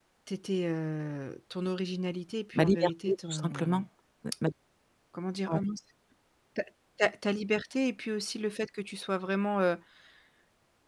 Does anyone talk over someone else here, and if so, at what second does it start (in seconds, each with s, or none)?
2.5 s